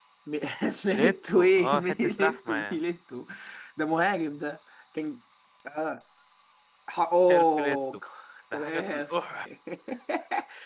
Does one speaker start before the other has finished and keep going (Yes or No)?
Yes